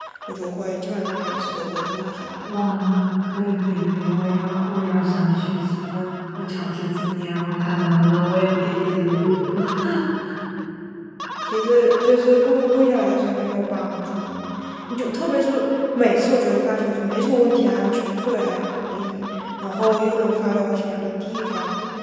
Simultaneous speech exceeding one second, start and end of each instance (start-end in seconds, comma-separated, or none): none